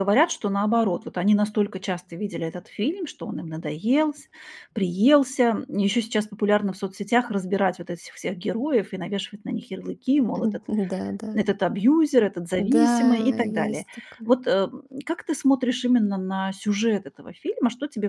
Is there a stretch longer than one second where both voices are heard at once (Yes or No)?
Yes